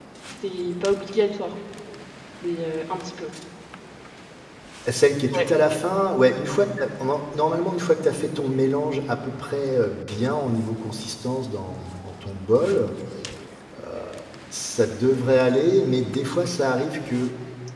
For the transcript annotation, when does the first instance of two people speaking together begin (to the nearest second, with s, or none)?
none